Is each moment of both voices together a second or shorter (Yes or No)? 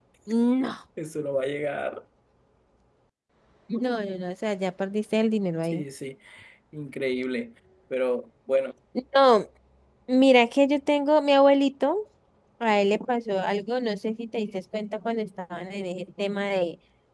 Yes